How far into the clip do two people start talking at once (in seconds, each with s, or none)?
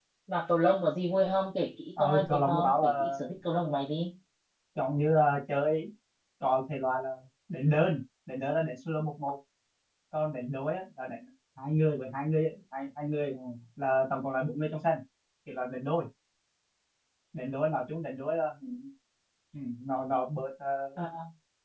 2.0 s